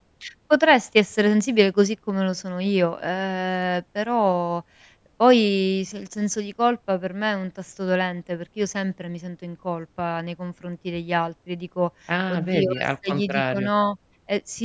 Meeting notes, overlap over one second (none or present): present